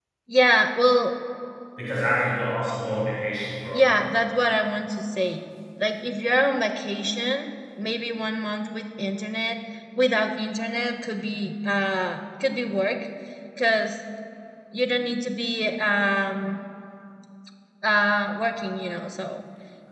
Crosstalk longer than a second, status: none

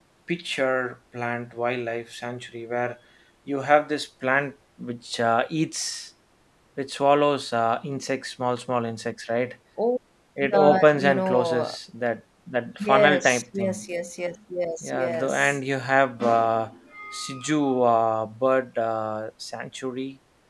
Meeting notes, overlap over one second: present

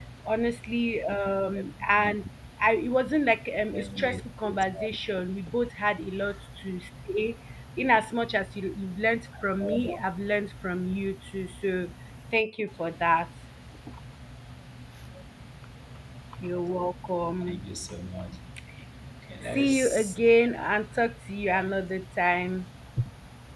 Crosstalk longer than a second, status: present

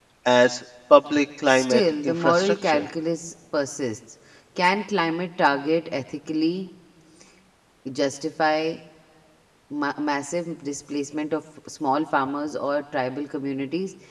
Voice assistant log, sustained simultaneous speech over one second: present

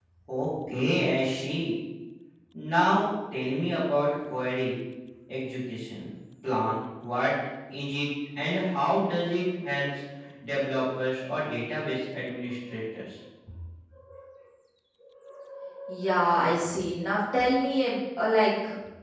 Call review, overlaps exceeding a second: none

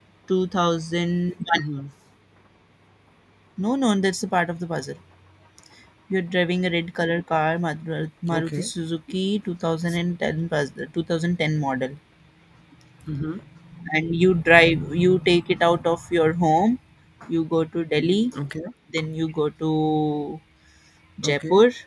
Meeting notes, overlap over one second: none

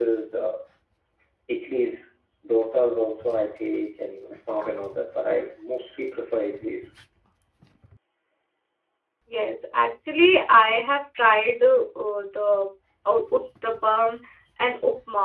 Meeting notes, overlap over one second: none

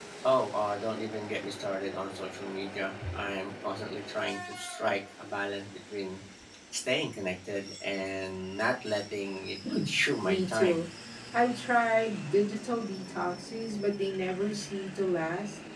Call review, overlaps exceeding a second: none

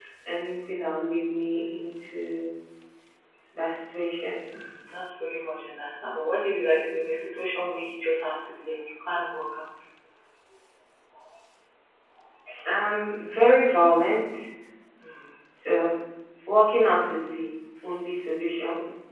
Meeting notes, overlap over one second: none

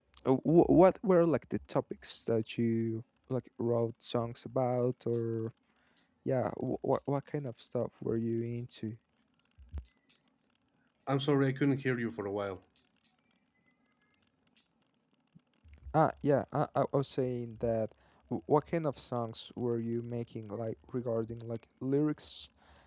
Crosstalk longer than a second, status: none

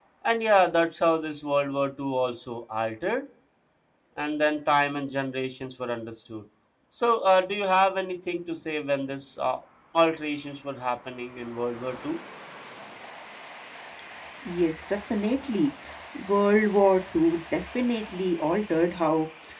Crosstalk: none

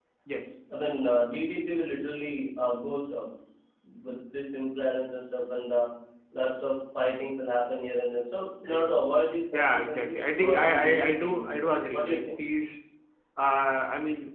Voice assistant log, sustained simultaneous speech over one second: present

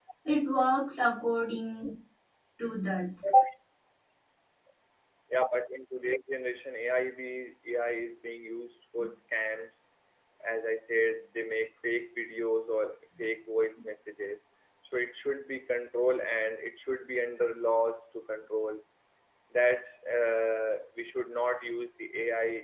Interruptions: none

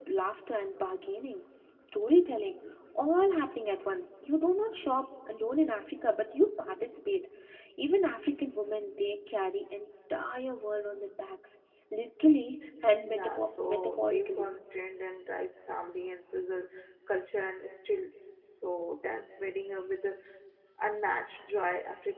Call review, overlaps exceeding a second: present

